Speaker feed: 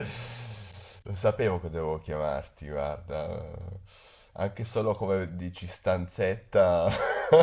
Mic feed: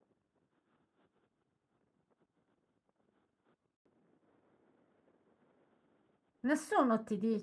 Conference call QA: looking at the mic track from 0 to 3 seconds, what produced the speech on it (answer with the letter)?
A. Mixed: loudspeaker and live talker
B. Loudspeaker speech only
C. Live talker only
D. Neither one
D